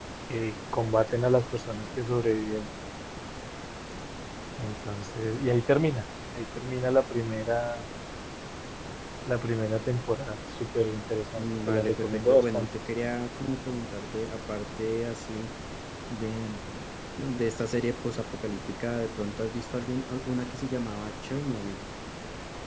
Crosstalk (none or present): present